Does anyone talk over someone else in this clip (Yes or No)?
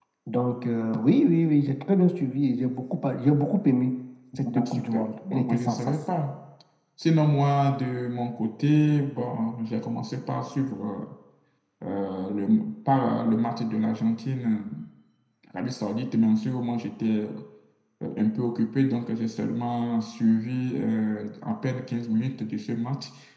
Yes